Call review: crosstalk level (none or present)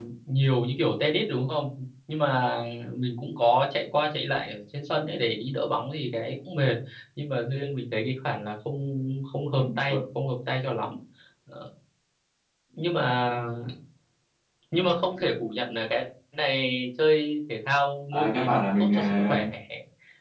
present